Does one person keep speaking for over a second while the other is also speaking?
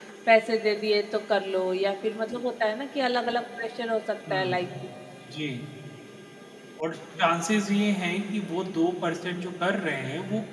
No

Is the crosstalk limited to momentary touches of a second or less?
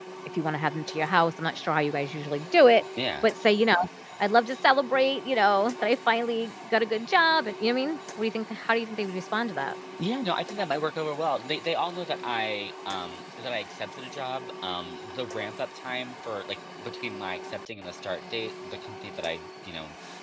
Yes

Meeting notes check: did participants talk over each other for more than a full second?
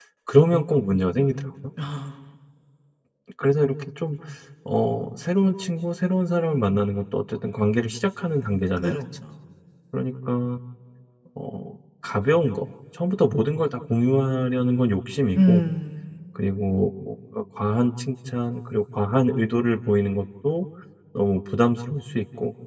No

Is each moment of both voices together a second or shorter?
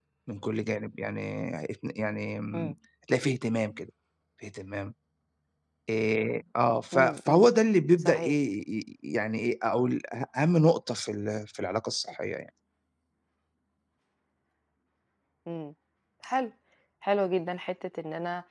Yes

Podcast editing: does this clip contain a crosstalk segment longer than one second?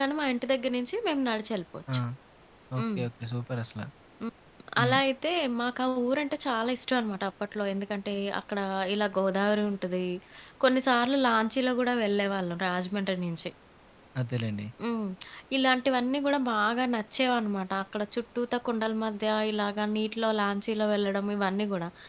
No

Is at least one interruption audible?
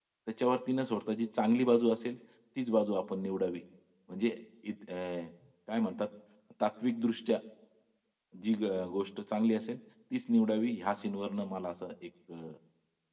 No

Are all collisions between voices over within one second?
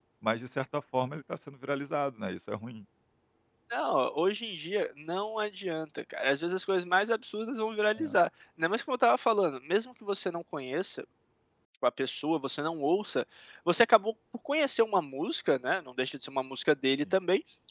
Yes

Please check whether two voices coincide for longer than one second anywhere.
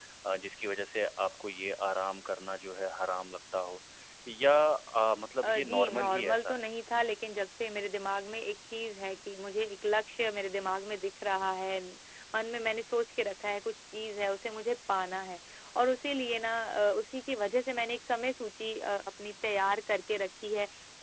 Yes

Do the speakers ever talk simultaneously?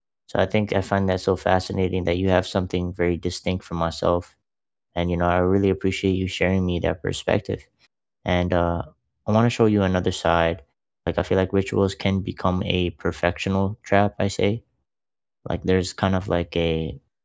No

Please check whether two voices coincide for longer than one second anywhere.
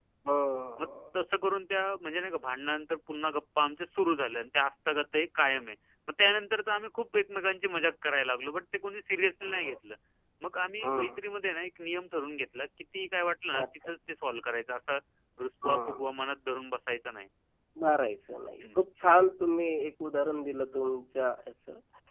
No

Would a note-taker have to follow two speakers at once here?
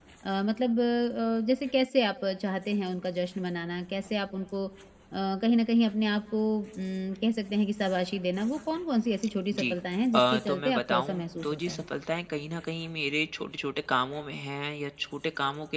Yes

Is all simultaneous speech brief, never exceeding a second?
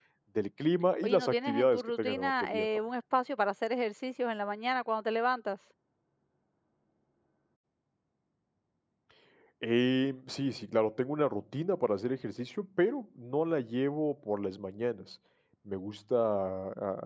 No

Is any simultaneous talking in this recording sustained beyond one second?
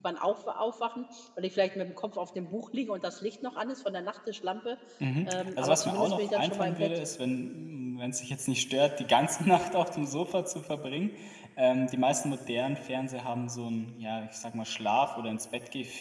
Yes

